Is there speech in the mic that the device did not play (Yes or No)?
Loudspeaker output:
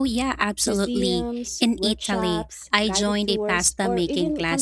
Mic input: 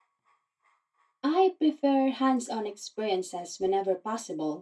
Yes